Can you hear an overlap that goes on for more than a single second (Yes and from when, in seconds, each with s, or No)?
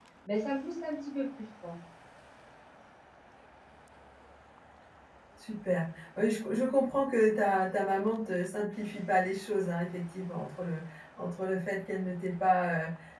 No